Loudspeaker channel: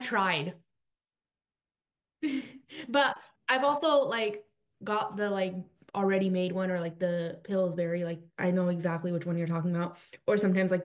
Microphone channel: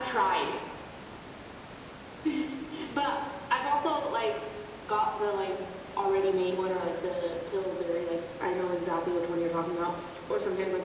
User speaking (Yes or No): No